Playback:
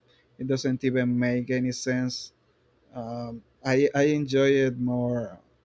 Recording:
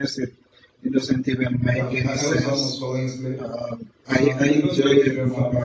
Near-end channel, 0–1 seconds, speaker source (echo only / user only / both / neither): echo only